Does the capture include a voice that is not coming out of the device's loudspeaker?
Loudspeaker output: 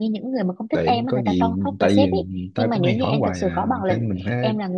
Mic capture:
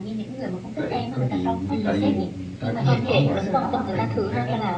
Yes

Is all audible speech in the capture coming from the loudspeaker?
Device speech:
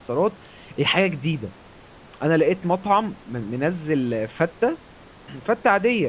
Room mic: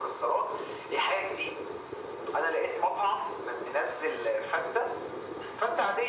Yes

